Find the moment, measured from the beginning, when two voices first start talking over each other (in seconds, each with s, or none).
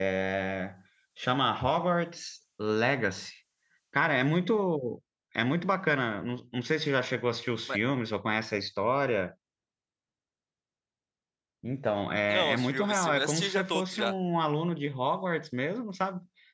12.3 s